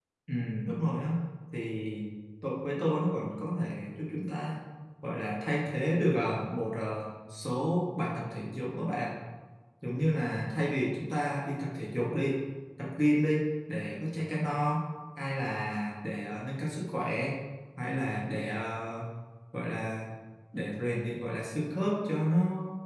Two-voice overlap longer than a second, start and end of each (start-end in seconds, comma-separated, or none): none